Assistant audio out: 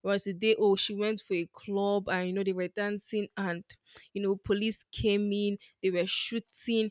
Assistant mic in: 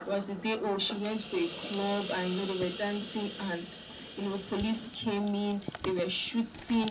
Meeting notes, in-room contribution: none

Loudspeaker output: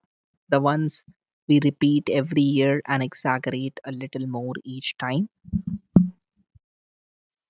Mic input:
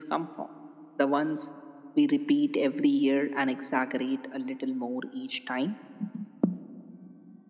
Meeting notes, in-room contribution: none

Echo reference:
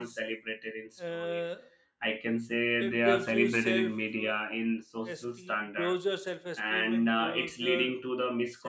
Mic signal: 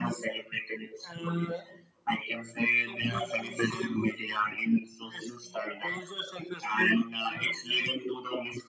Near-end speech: none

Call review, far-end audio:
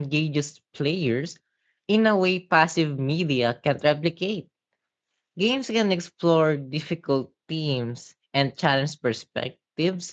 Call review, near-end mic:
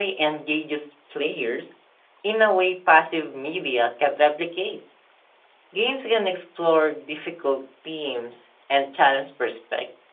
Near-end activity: none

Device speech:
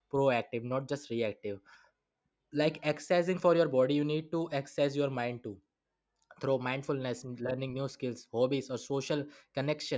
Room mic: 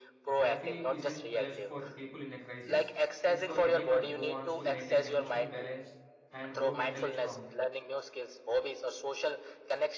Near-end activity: present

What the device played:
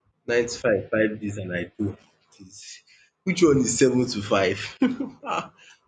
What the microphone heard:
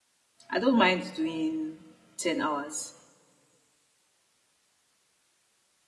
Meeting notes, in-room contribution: present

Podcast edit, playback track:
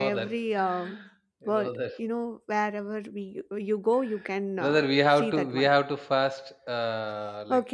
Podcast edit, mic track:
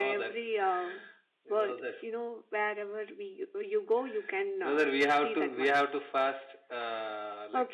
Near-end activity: none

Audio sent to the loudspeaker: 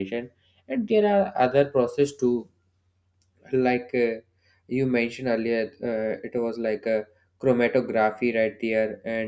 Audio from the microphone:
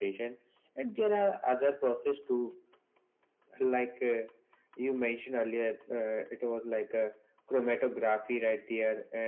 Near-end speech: none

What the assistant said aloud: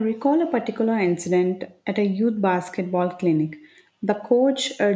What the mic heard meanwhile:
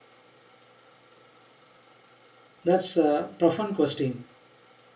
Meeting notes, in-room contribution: present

